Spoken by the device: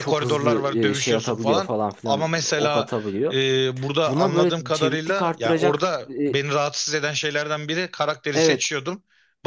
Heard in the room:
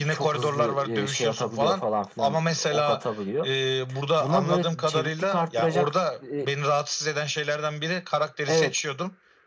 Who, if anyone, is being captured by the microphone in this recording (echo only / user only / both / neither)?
echo only